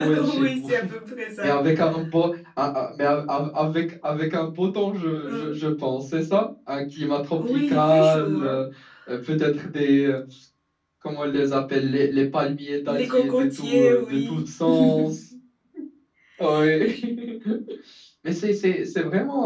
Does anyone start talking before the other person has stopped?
Yes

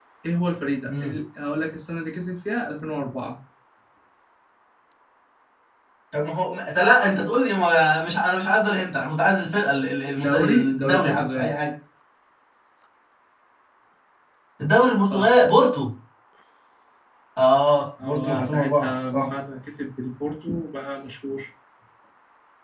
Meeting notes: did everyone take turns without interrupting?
No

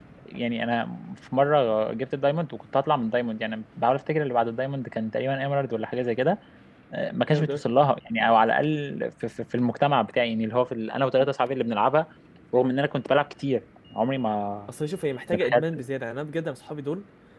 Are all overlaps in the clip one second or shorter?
Yes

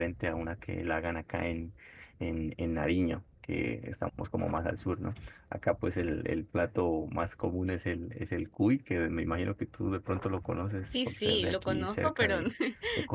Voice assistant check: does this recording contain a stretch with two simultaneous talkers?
Yes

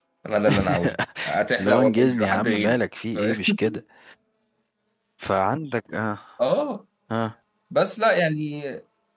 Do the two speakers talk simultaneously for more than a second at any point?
Yes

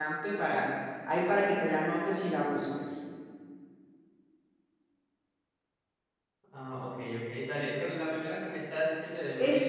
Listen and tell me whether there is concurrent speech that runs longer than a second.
No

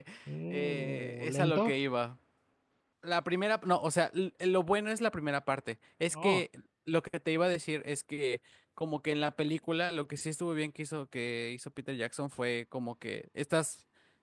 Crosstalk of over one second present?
Yes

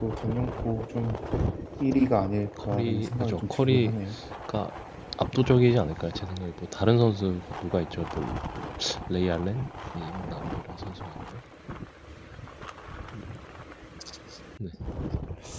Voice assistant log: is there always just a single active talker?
No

